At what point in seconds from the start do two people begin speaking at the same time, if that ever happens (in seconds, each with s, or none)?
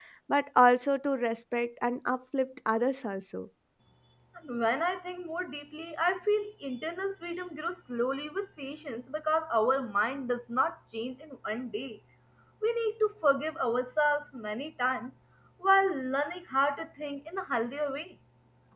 none